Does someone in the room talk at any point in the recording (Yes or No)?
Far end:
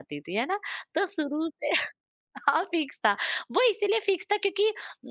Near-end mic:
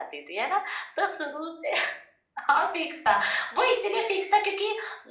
No